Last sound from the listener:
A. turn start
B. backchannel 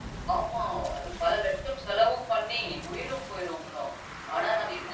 B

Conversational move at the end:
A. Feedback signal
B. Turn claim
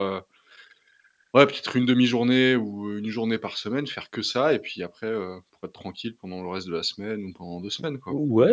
B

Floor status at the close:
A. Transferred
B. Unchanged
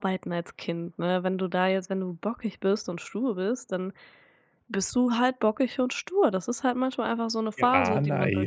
A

